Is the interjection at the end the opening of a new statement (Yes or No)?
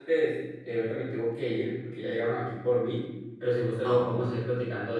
No